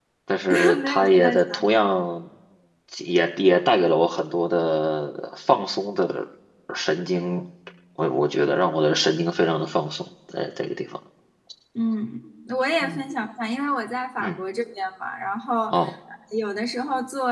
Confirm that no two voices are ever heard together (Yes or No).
No